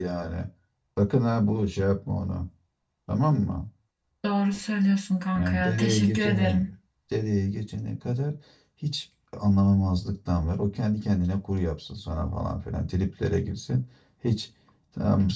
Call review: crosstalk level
present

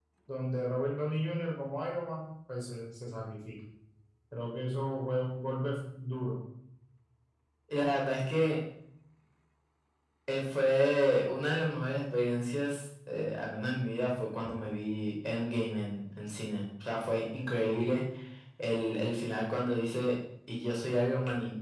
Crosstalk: none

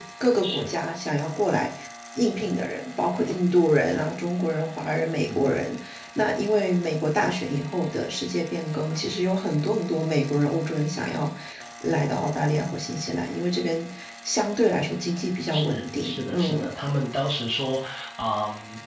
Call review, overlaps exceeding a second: present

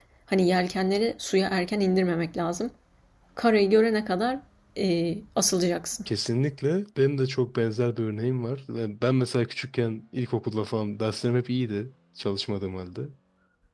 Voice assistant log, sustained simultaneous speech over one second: none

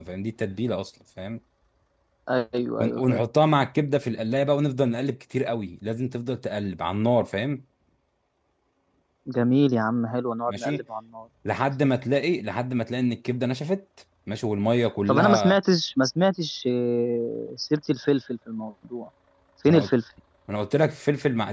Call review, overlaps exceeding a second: none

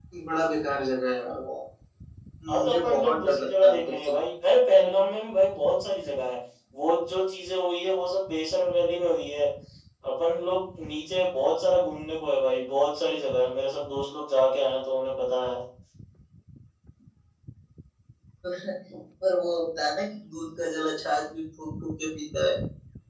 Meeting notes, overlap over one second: present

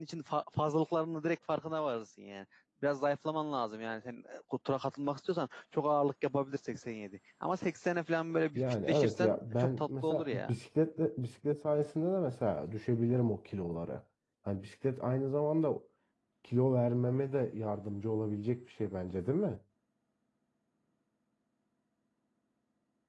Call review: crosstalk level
present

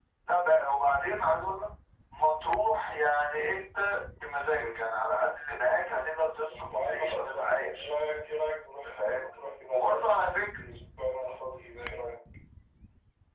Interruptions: present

